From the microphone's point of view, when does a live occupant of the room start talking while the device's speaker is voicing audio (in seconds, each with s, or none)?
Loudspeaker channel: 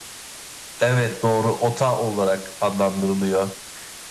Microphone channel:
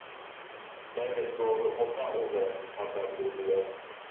none